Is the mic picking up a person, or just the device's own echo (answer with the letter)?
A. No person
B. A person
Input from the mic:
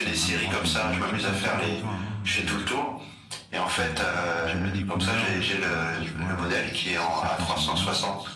B